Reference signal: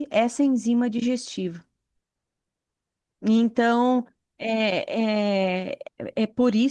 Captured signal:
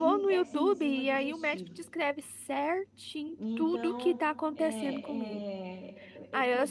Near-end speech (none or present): present